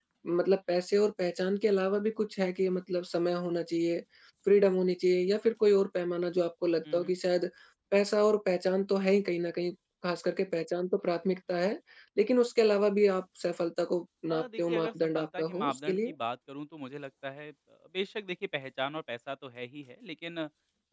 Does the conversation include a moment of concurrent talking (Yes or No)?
Yes